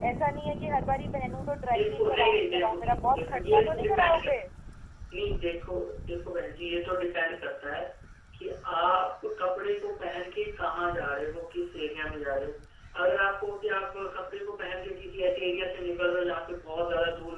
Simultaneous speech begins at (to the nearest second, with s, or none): 2 s